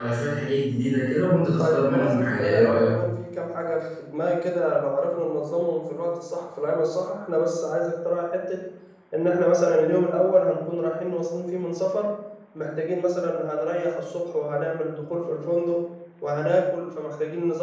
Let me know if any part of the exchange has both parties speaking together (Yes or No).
Yes